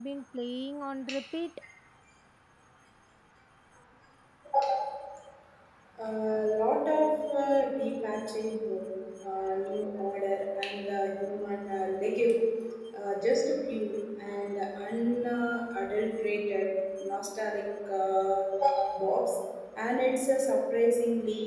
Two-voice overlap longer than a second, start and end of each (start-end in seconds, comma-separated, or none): none